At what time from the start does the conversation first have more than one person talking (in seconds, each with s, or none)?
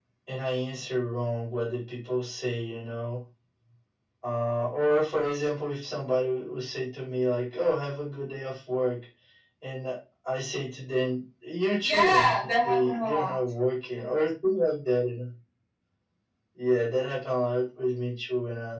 11.8 s